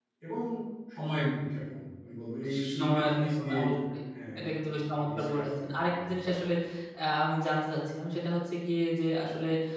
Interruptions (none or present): present